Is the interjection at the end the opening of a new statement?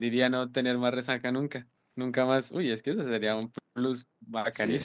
Yes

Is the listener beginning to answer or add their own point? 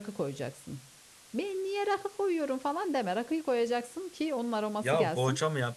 Yes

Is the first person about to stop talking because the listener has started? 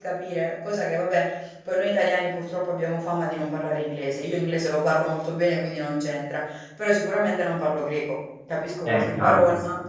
No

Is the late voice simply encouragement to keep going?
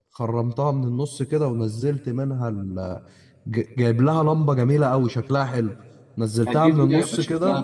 No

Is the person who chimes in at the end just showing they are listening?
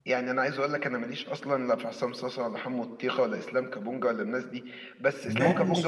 Yes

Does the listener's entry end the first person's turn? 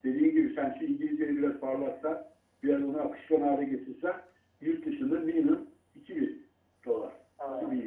Yes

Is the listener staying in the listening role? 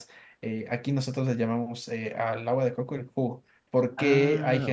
Yes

